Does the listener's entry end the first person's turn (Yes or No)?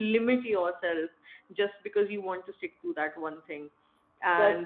Yes